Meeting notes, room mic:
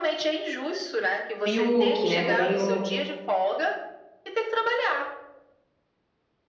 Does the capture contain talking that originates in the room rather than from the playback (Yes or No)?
Yes